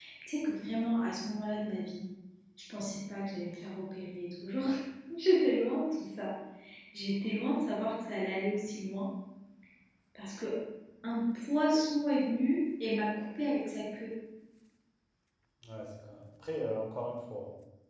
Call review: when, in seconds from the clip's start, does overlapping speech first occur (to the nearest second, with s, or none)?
none